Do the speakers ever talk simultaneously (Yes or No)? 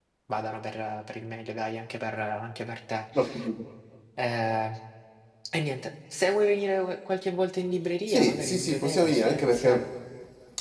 Yes